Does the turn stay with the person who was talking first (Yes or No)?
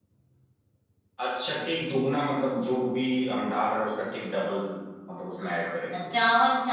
No